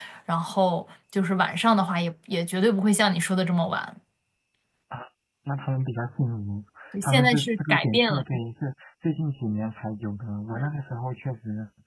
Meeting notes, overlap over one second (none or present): present